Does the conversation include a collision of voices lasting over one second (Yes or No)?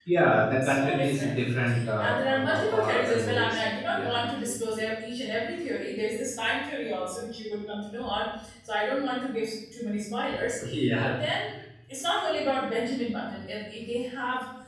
Yes